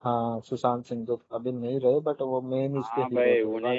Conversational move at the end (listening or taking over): taking over